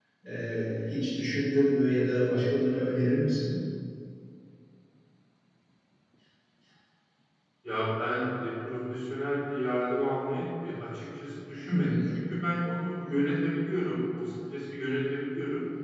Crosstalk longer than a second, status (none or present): none